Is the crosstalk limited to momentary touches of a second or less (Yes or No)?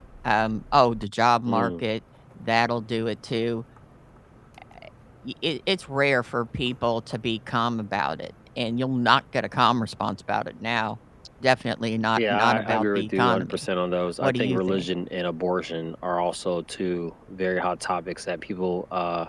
No